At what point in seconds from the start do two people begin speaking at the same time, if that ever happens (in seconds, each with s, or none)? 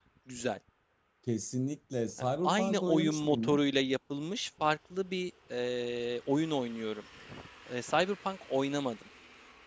2.2 s